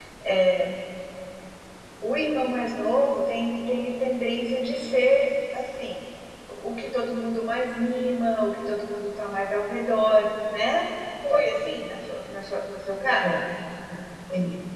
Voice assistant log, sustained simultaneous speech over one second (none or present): none